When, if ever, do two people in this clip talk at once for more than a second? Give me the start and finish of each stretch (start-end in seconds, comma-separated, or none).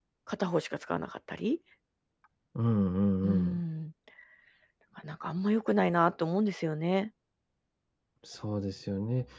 none